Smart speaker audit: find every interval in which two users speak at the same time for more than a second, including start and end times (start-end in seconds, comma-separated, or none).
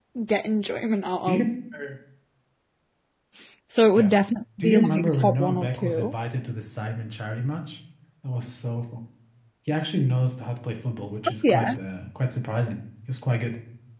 4.6-6.1